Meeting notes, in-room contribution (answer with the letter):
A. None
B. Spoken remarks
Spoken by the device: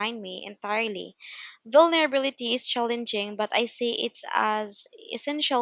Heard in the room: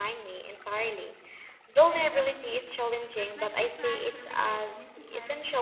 B